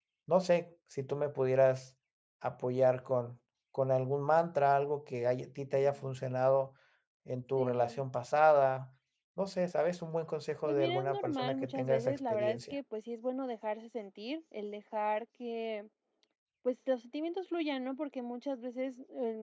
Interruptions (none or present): present